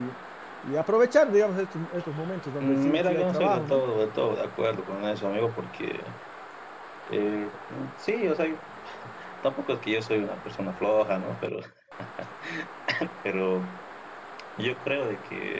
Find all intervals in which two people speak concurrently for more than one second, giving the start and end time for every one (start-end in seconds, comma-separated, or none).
2.6-3.8